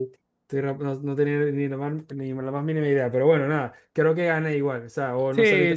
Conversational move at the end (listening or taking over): taking over